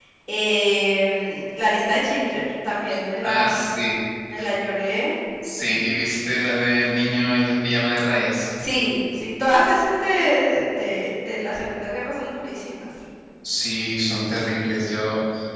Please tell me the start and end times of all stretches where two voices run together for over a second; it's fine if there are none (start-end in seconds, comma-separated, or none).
none